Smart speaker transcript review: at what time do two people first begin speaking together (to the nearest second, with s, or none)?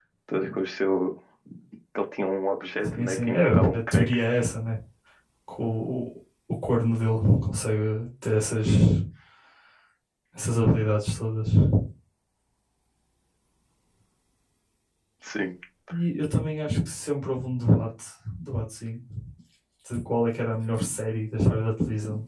3 s